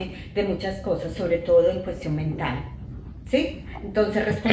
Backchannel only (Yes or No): Yes